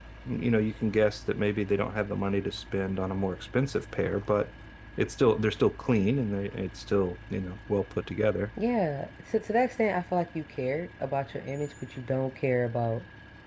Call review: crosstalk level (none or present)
none